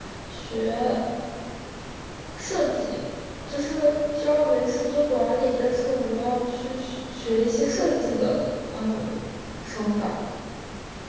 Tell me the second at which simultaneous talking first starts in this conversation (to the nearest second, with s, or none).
none